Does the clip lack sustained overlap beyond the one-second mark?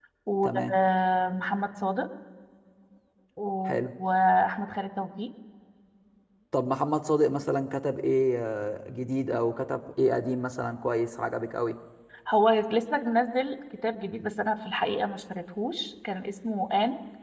Yes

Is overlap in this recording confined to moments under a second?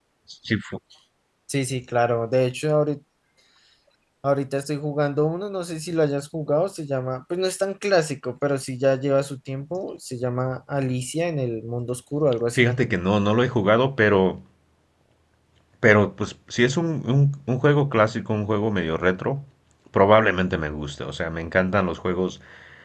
Yes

